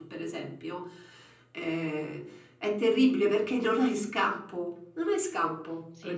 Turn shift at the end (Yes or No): Yes